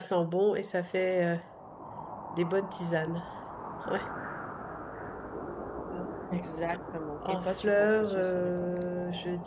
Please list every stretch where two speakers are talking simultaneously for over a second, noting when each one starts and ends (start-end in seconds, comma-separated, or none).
7.3-8.7